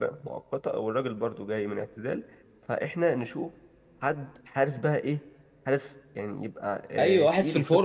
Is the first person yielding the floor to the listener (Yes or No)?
Yes